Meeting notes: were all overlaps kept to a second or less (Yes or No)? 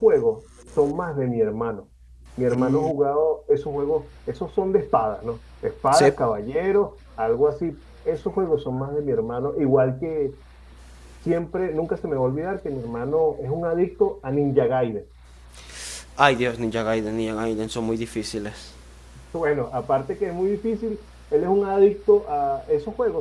Yes